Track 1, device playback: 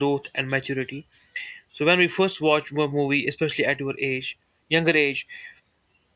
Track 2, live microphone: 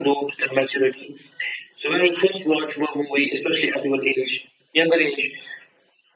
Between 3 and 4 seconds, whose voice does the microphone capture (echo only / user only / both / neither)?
echo only